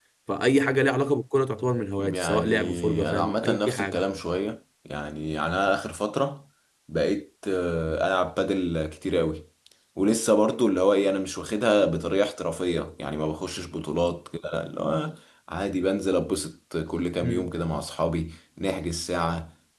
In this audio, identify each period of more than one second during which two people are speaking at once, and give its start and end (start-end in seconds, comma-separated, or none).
2.0-4.0